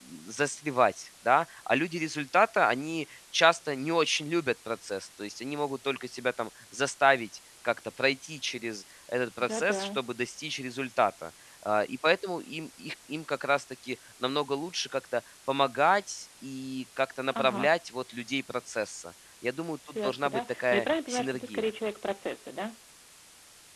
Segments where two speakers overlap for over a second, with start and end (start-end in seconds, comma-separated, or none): 19.9-21.7